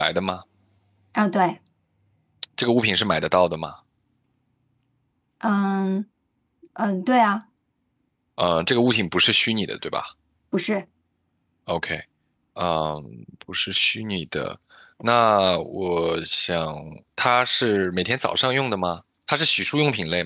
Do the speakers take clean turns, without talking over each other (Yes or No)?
Yes